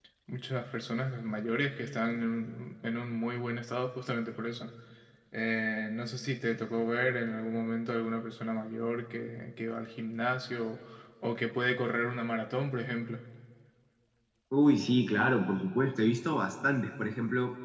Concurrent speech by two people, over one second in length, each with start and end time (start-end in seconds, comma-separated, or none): none